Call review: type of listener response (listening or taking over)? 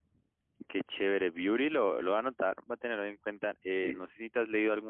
listening